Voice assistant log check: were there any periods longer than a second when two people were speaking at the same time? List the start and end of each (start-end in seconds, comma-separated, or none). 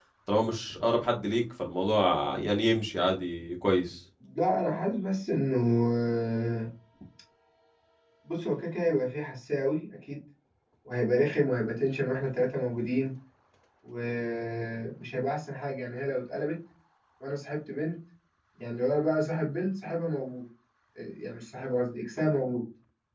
none